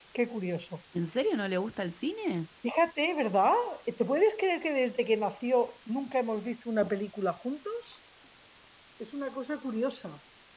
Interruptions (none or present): none